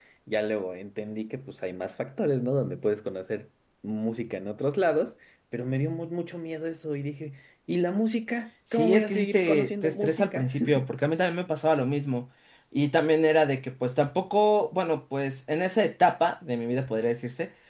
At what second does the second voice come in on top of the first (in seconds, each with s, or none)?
8.7 s